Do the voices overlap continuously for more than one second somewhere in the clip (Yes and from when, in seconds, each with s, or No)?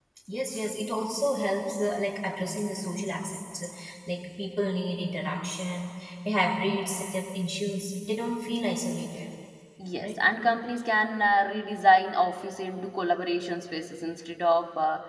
No